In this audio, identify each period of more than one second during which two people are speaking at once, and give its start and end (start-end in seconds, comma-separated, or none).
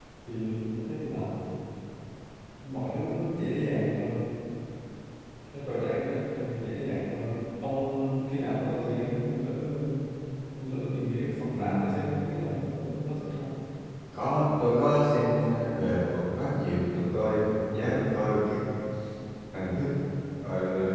none